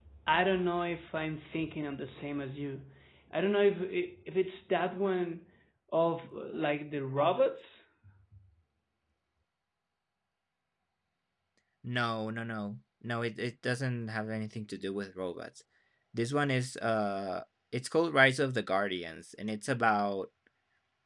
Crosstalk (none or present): none